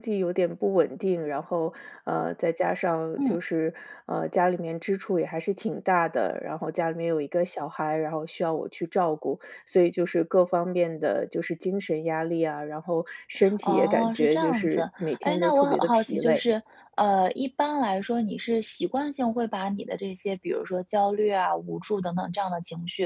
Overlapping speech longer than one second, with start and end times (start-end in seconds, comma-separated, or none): 13.6-16.4